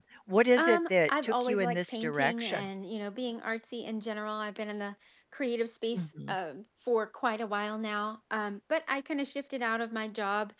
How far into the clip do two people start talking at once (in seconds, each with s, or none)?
0.6 s